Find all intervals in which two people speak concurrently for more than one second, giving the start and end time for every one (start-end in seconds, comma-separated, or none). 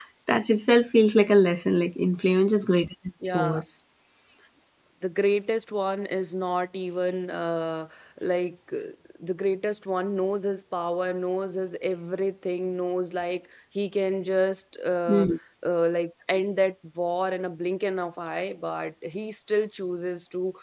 none